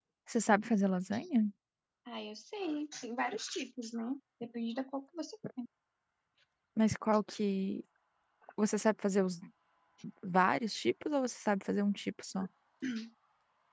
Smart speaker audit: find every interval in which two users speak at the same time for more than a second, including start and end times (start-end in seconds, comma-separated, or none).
none